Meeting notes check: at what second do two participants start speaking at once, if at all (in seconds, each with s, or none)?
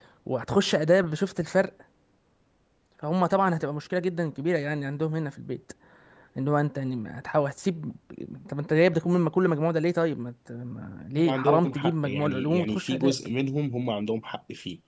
11.2 s